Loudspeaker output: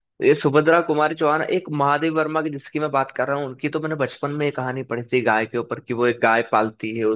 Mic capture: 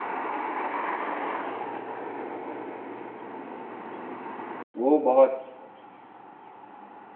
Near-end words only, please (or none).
वो बहुत